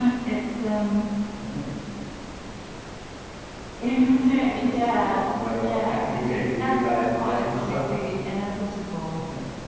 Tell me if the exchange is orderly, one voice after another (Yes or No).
No